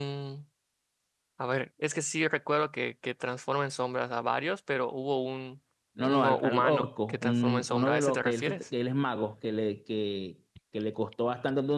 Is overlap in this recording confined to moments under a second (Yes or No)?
No